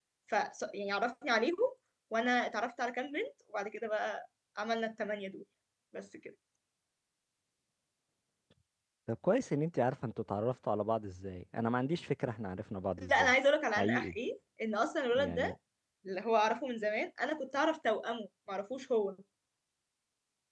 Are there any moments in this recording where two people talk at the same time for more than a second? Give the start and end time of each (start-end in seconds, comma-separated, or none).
none